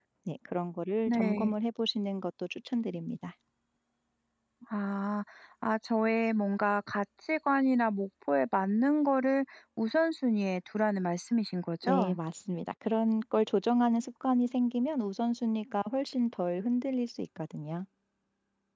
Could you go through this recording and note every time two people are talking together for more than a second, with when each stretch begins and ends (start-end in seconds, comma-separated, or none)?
none